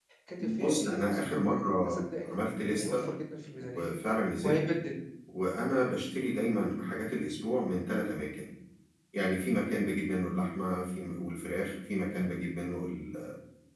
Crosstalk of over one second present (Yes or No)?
Yes